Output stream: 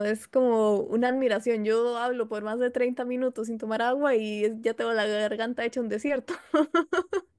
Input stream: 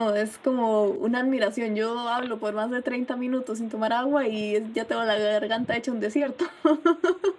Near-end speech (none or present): none